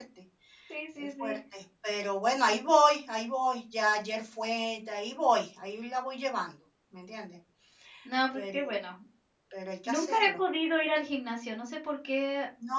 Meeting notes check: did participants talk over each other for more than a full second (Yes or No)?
No